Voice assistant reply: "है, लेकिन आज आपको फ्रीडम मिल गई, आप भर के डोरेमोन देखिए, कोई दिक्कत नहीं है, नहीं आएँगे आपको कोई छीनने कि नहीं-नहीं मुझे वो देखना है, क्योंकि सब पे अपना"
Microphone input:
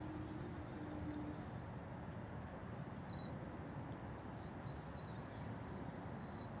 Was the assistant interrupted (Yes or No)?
No